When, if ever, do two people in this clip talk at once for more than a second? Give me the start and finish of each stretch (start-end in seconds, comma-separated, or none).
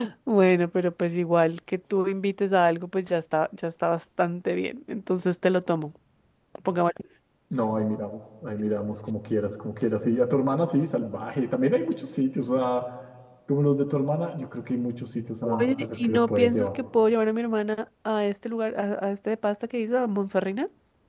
15.4-16.8